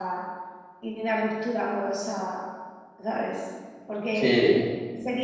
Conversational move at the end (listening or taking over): listening